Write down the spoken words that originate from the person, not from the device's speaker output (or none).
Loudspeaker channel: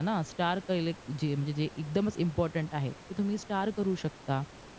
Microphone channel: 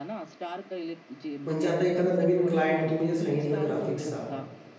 म्हणजे आता एखादा नवीन क्लायंट तुम्ही जे सांगितलं ग्राफिक्सचा,